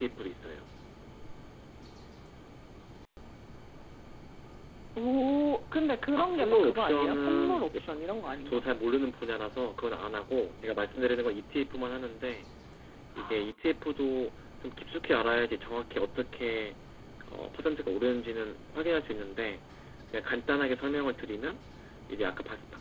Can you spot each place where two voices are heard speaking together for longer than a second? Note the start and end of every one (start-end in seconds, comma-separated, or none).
6.2-7.8